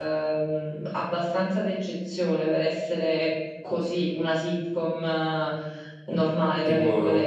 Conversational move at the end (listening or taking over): taking over